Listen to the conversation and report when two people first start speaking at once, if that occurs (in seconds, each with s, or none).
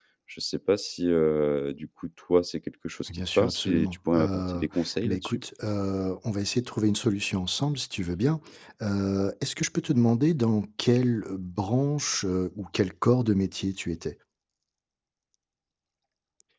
3.1 s